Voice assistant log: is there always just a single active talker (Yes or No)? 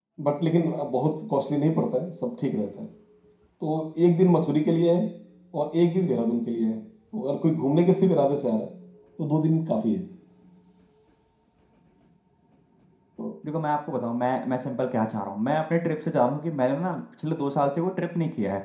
Yes